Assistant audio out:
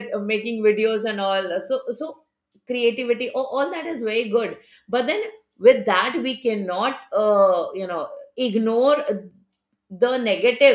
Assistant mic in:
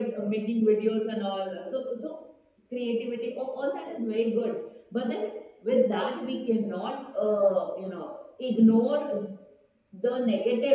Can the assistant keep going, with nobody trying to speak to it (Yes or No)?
Yes